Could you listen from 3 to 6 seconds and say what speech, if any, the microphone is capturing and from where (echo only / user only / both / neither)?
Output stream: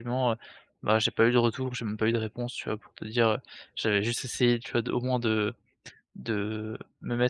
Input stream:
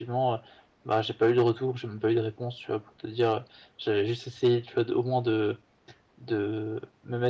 echo only